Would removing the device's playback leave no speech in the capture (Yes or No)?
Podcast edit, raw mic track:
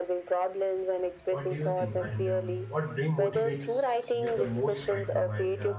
No